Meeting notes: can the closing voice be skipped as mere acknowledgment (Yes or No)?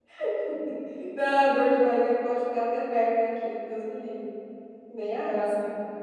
No